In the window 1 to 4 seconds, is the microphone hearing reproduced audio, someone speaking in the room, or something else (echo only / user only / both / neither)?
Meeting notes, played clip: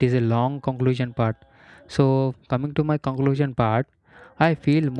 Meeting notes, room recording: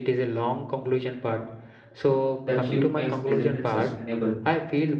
both